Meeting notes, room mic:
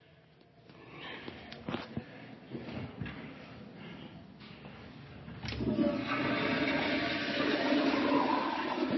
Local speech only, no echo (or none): none